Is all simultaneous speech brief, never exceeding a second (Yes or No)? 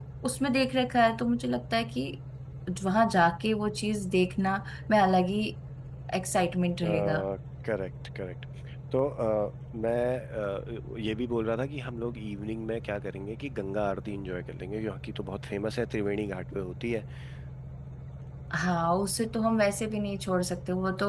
Yes